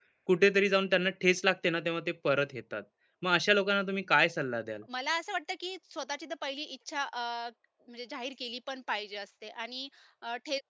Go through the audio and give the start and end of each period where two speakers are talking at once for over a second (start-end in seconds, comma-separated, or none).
none